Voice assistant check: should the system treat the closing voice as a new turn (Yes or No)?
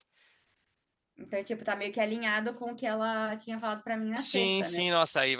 Yes